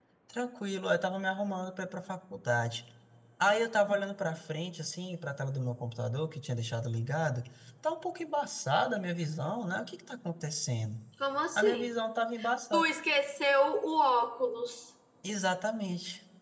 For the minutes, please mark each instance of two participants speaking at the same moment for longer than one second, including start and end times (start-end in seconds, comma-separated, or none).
none